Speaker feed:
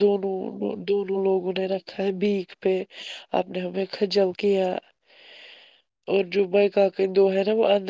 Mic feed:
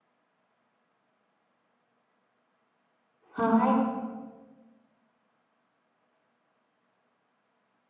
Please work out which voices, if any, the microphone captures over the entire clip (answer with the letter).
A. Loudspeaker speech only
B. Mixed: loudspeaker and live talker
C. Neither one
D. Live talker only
D